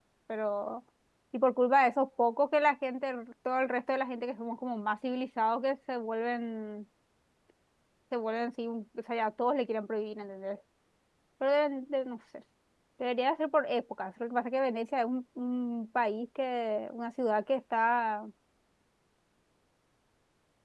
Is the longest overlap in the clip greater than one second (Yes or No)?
No